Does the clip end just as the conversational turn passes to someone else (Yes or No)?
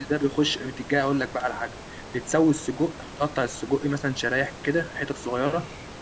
No